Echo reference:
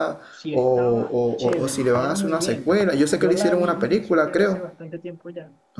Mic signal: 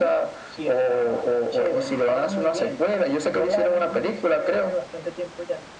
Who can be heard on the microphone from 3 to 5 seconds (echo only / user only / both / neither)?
echo only